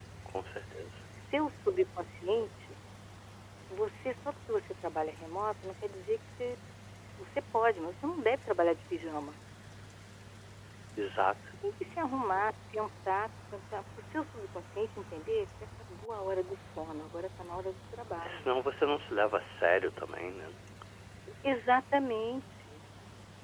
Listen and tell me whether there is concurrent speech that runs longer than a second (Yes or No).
No